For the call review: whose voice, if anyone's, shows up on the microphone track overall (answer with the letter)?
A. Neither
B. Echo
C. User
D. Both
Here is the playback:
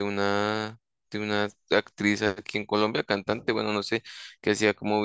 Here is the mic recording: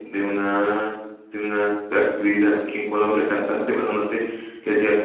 B